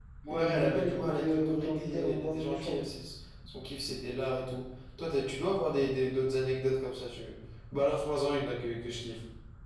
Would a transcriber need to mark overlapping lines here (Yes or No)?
Yes